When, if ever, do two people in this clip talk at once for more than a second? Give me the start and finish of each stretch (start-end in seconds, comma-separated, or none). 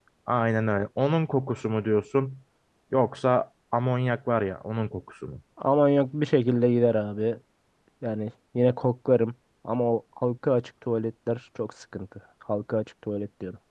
none